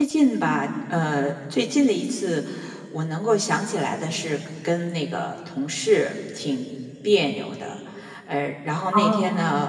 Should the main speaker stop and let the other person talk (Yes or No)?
No